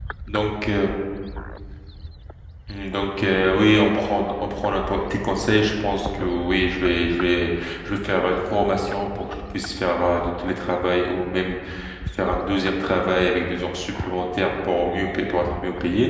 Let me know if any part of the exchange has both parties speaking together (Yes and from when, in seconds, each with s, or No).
No